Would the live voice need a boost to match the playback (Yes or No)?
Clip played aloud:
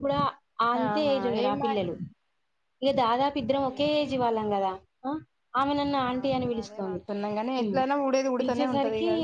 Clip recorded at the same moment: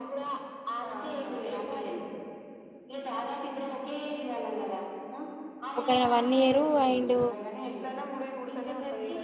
No